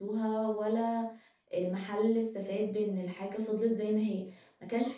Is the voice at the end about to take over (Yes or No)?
No